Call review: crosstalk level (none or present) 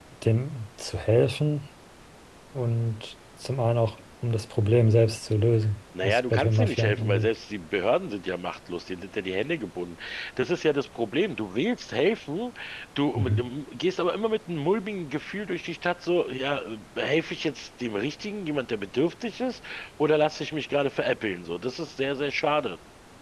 present